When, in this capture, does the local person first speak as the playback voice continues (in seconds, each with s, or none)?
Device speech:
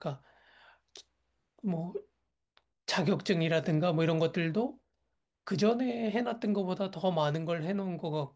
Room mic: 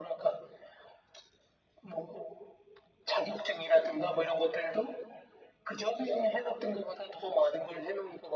none